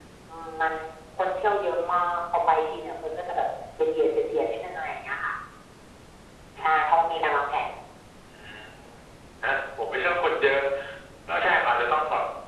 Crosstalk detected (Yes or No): No